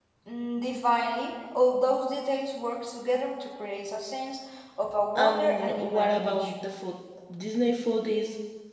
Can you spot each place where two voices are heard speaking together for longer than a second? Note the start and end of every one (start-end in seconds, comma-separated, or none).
5.2-6.5